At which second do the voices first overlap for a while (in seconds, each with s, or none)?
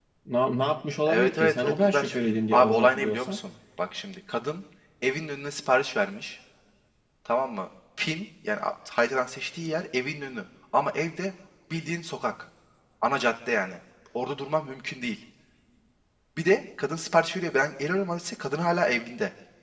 1.1 s